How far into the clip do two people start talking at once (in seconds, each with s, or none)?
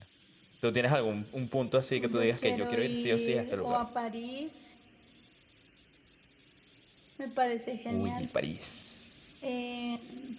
2.1 s